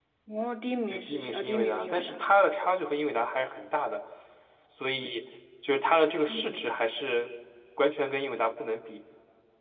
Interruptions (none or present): present